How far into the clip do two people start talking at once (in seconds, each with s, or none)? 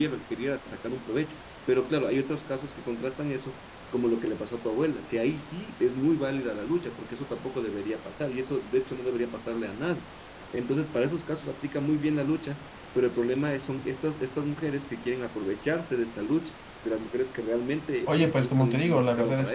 18.1 s